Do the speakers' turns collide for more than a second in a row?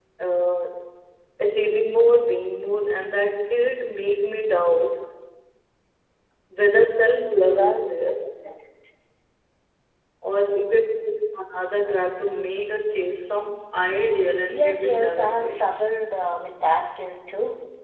Yes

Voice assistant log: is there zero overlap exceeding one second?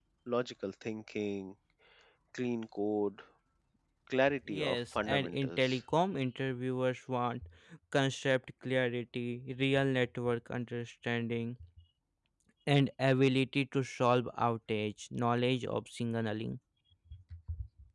No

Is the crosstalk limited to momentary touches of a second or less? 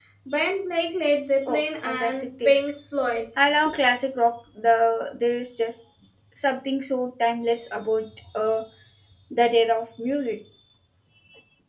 No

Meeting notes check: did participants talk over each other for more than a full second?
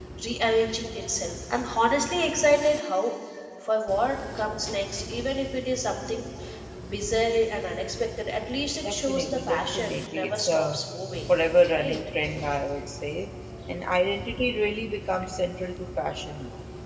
Yes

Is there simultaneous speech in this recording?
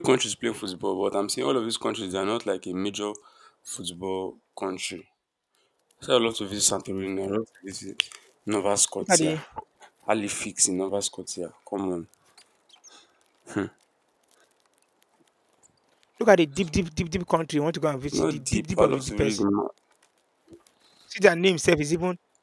Yes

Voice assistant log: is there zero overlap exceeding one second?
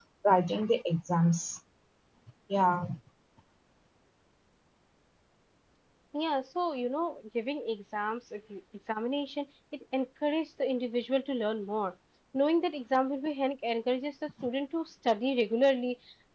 Yes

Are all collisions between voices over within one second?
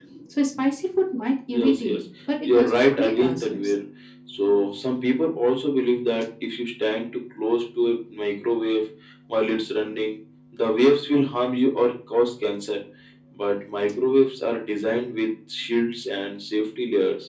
No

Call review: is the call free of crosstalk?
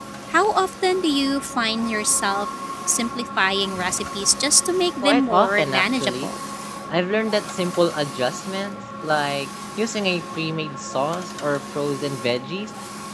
No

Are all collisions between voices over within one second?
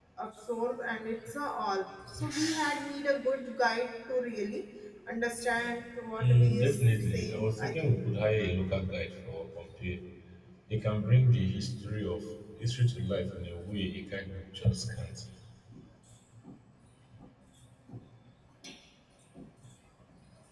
No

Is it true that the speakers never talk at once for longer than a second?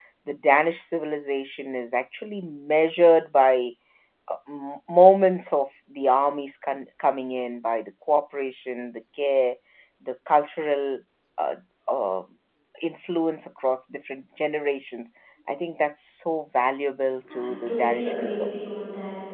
No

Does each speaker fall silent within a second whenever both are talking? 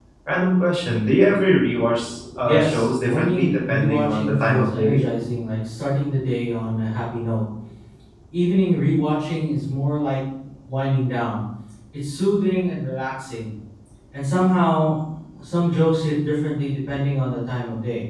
No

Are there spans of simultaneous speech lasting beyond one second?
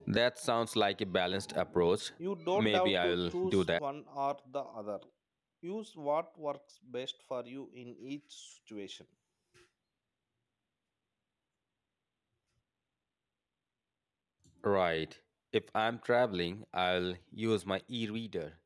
Yes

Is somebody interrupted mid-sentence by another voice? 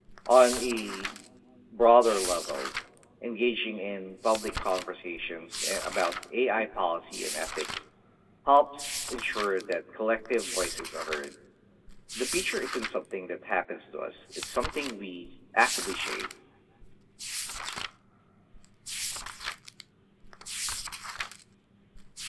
No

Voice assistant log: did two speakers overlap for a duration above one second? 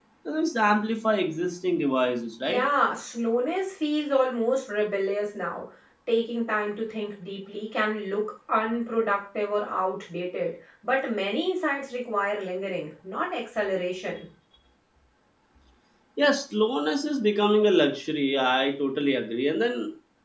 No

